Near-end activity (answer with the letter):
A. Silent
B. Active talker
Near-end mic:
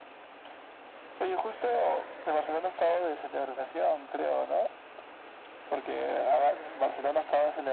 A